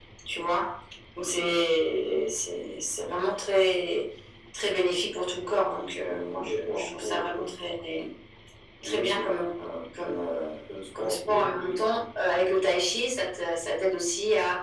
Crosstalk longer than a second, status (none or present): present